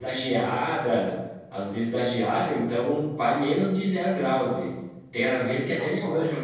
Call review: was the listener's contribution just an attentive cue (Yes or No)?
Yes